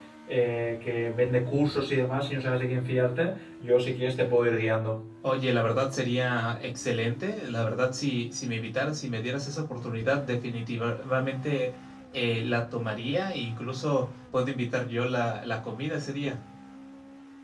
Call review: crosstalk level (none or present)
none